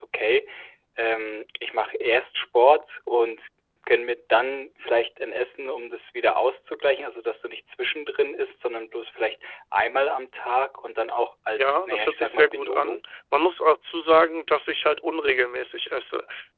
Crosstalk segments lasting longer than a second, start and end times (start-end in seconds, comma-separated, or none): 11.6-13.0